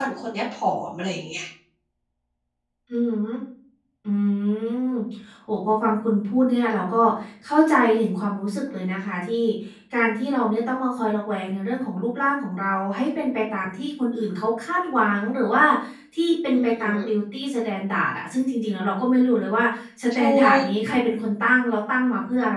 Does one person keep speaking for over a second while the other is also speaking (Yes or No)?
No